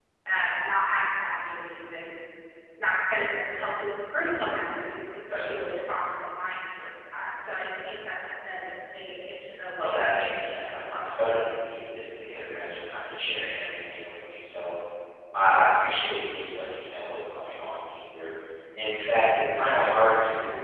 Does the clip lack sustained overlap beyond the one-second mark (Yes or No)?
No